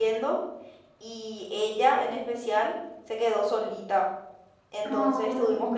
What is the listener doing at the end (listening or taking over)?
listening